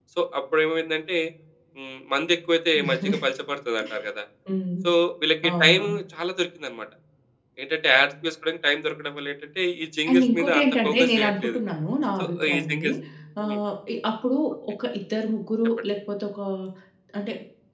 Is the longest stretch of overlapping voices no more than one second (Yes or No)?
No